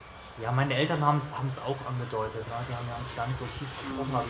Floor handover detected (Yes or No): No